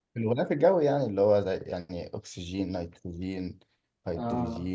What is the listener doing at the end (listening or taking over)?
taking over